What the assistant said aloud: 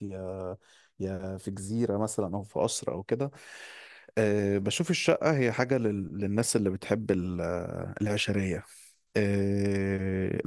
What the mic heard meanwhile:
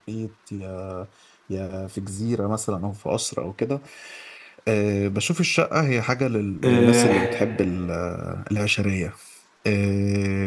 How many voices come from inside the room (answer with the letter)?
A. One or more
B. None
A